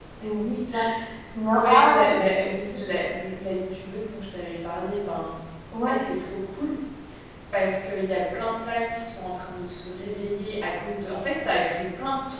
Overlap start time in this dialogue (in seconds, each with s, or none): 1.5 s